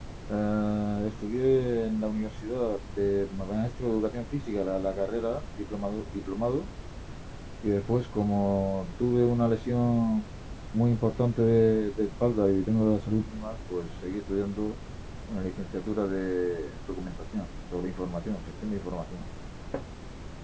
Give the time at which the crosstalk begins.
none

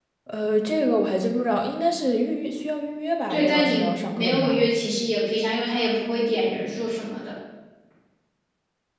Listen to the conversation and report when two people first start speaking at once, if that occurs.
3 s

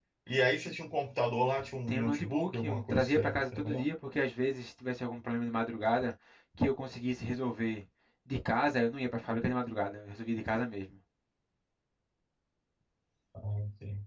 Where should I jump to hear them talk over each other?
2 s

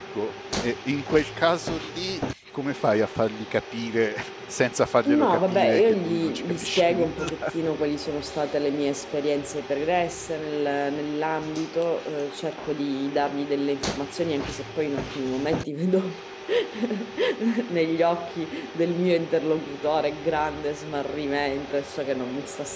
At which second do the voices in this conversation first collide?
5 s

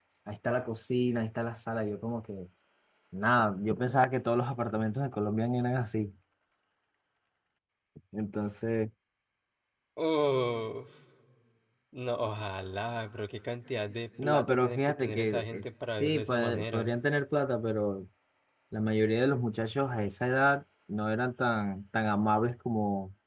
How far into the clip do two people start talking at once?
14 s

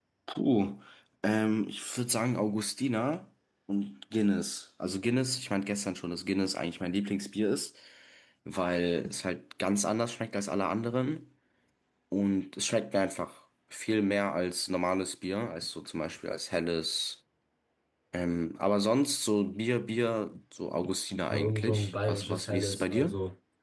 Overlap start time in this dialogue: 21 s

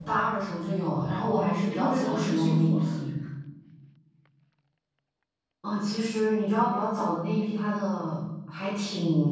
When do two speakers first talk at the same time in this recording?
1 s

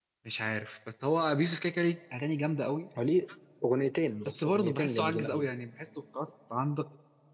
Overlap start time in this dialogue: 4 s

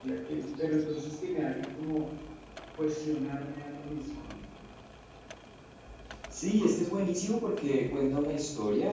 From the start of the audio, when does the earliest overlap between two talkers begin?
none

